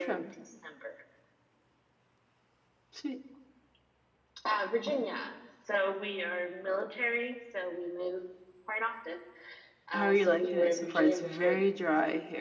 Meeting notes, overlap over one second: present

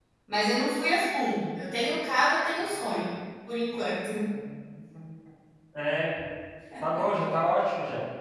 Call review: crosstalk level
none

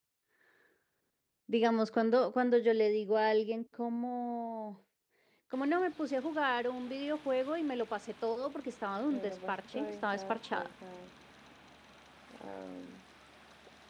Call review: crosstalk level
present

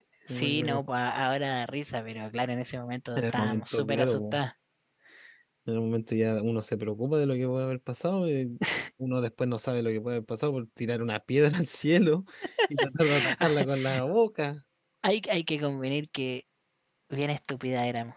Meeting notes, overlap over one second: present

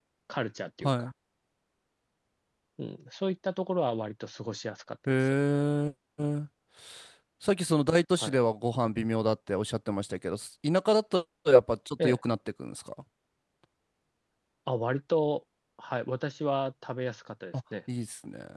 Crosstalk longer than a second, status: none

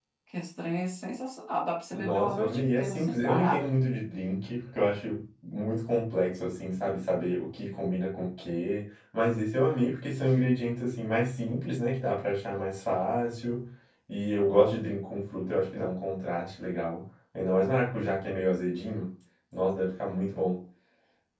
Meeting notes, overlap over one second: present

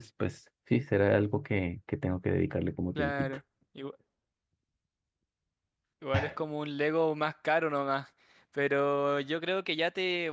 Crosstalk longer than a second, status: none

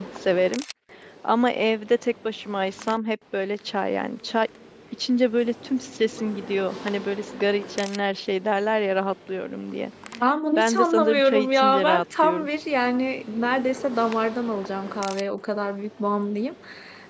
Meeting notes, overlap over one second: present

